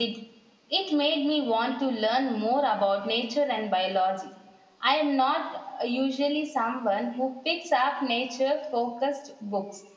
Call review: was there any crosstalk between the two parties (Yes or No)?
No